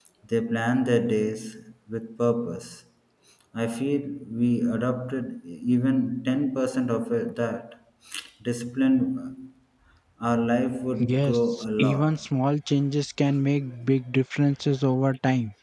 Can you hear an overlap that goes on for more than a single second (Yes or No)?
Yes